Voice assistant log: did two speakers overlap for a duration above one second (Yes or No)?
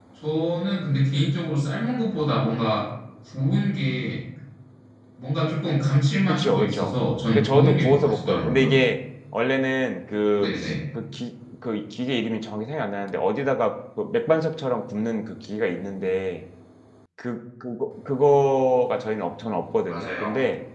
Yes